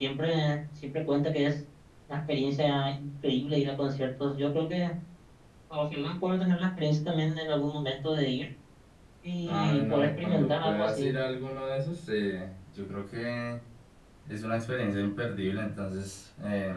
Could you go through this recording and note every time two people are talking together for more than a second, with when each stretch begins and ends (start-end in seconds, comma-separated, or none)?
9.4-11.1